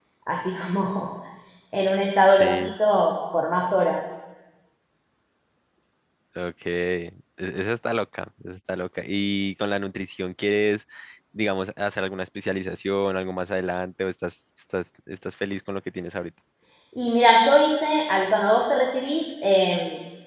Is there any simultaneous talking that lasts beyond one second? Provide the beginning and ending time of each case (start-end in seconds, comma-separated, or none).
none